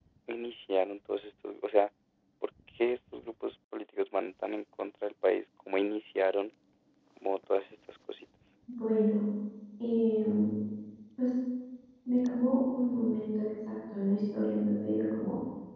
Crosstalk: none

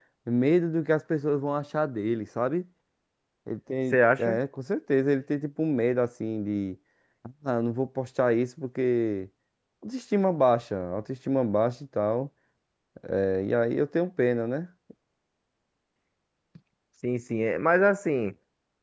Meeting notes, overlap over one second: none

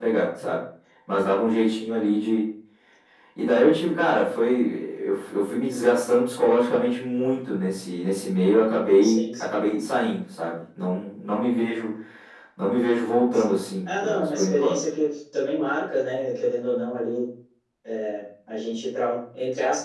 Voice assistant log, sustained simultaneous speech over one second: present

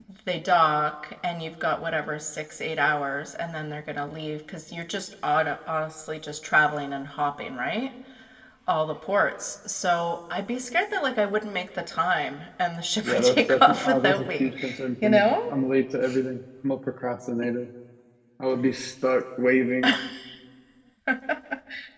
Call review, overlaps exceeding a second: present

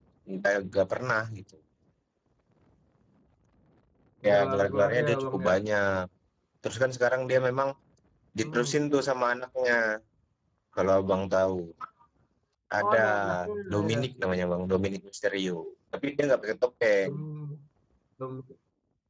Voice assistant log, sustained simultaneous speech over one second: present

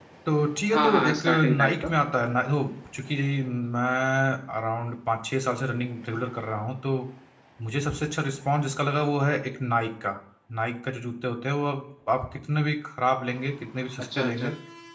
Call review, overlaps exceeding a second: present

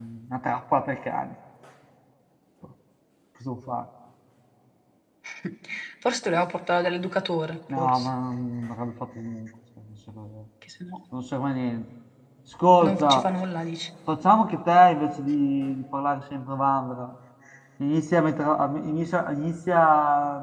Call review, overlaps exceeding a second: none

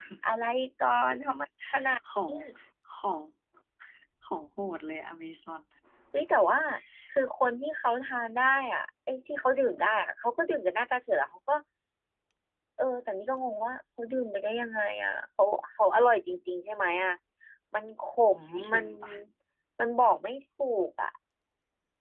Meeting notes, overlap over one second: none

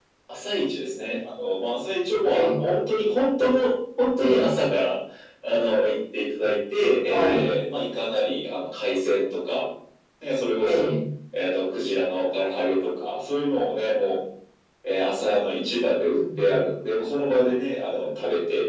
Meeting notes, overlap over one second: none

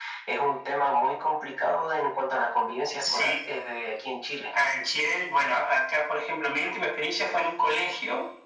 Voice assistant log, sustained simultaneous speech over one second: none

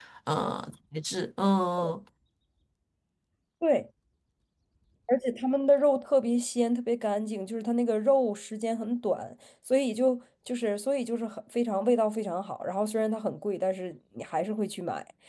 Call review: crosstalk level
none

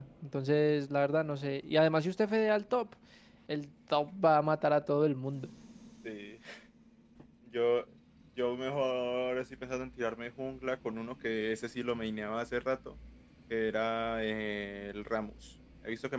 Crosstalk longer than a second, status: none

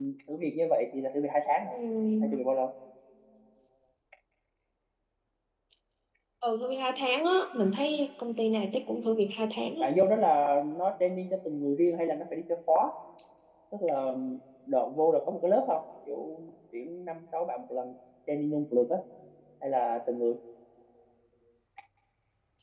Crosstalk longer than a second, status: none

